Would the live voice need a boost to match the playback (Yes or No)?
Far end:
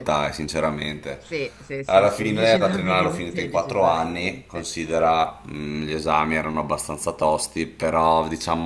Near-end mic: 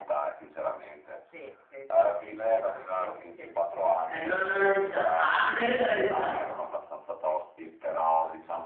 No